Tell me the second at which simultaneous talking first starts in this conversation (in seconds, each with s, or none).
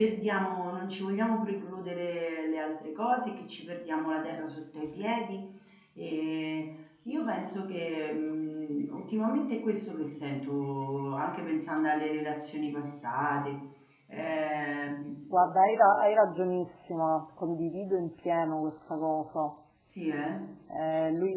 none